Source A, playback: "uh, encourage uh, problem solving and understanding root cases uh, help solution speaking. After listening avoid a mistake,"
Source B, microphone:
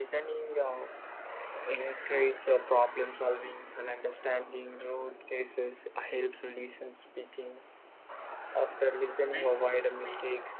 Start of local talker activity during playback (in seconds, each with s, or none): 9.3 s